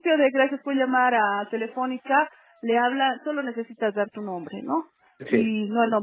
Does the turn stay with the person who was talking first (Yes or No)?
Yes